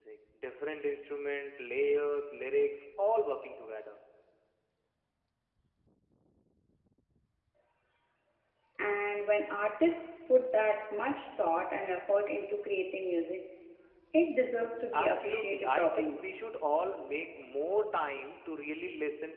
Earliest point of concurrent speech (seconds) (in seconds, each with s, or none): 14.9 s